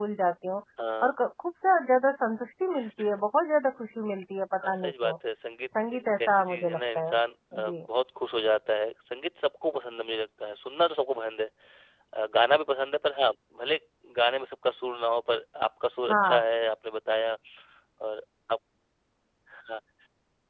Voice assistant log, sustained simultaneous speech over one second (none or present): present